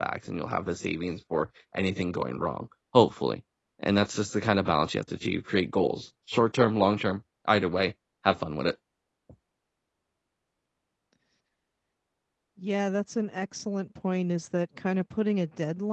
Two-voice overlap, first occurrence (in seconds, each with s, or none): none